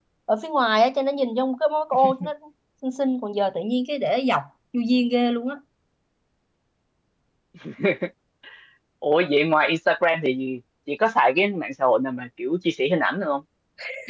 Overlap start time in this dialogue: none

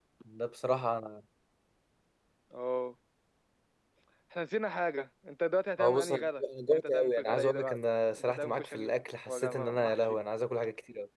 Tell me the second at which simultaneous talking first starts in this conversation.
6 s

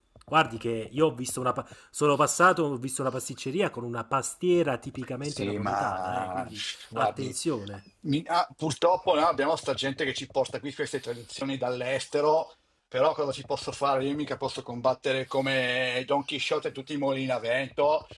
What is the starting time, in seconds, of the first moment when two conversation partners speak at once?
5 s

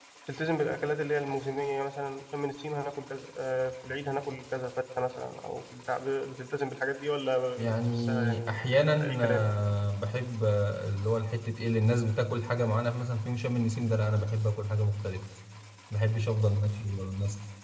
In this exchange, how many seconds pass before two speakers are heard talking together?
8 s

